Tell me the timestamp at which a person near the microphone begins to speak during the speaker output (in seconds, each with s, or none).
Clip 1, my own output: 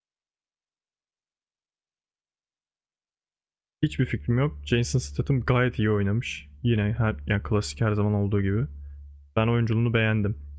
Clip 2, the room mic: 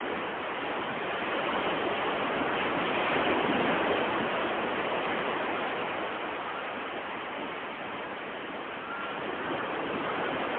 none